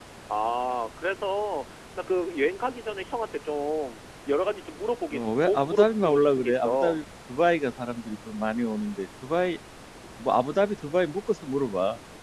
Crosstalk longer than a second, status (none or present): present